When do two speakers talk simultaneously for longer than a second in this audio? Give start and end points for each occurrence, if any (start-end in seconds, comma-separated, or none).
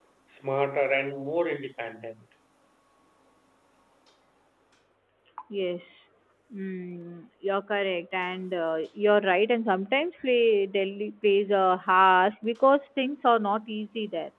none